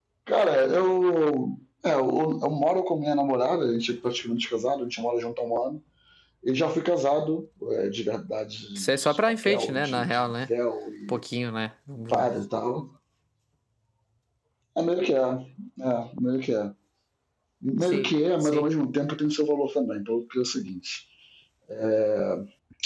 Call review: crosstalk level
present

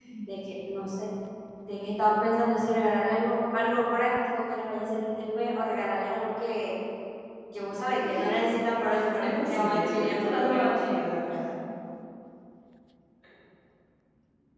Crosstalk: present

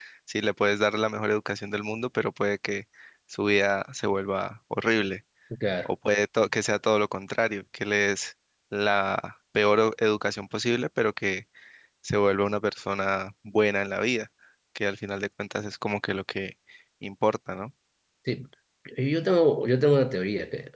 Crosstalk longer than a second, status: none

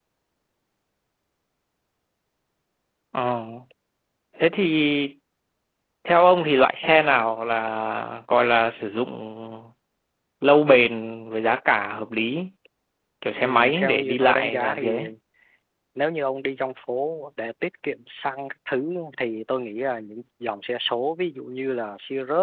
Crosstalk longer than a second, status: present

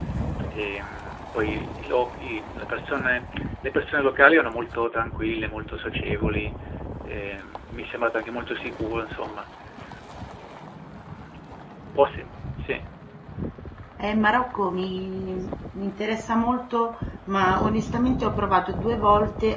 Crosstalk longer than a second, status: none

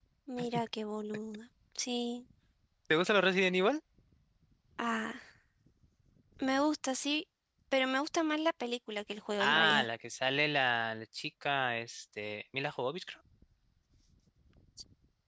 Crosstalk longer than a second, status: none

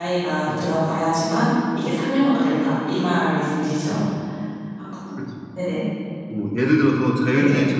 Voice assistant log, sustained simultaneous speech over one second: none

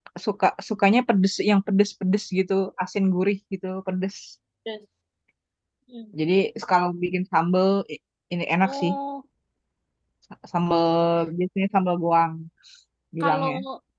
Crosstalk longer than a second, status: none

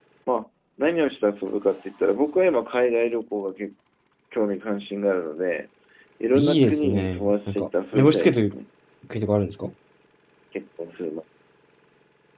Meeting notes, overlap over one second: present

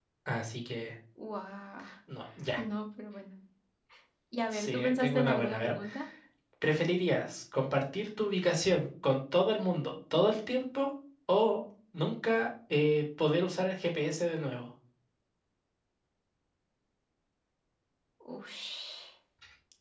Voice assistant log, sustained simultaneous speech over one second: present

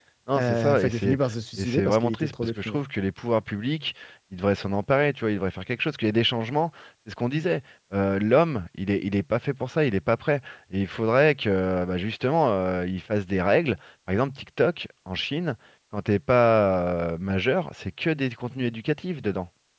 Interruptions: present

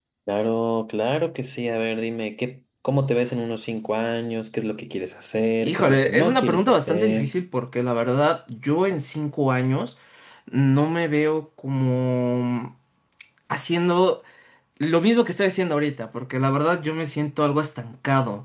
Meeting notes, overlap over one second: present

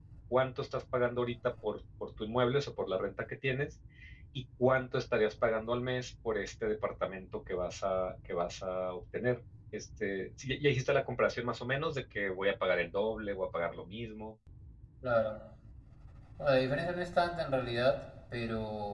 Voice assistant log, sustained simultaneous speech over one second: none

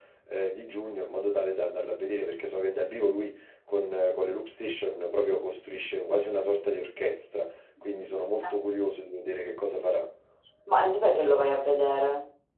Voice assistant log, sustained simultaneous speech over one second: none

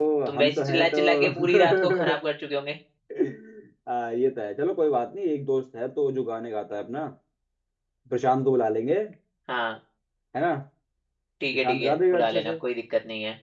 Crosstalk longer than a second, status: present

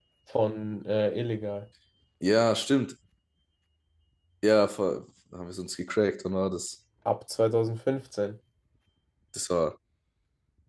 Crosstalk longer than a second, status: none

